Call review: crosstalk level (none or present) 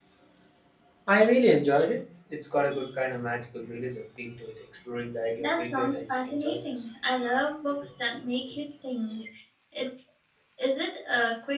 present